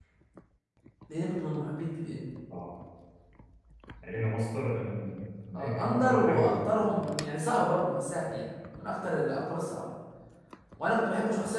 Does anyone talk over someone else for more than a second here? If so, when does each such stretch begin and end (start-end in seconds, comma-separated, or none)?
5.5-6.8